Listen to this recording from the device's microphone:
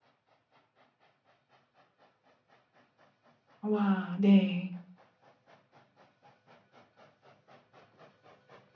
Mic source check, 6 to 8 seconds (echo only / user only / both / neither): neither